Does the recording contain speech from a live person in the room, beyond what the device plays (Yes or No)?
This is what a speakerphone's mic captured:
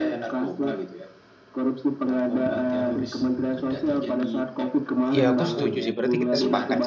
Yes